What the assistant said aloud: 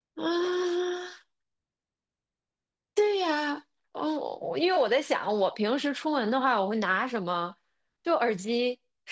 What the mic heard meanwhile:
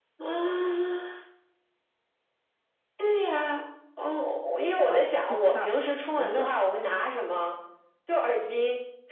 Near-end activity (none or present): present